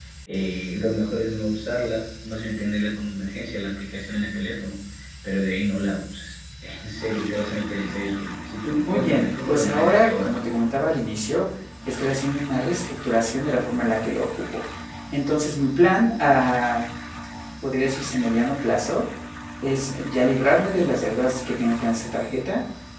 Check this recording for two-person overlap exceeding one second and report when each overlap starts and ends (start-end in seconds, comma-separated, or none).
8.9-10.3